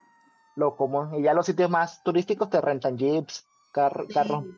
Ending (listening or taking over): taking over